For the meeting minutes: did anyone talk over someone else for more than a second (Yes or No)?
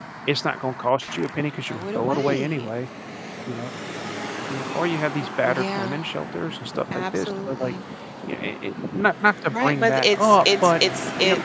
Yes